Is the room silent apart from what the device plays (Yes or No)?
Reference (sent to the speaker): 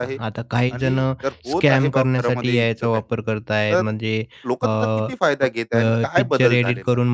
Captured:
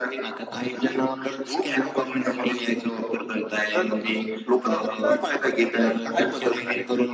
No